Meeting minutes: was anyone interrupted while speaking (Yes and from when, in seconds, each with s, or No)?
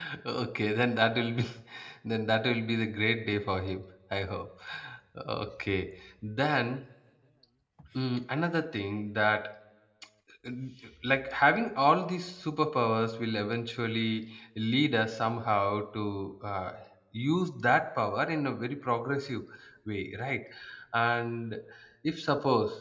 No